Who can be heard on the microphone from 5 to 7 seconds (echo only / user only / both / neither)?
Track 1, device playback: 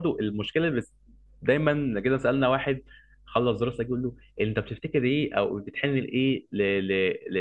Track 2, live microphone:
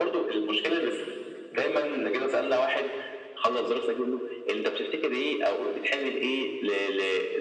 echo only